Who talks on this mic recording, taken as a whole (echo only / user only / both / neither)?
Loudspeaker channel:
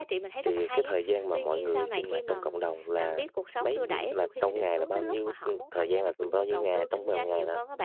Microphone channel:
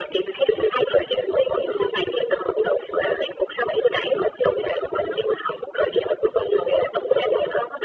echo only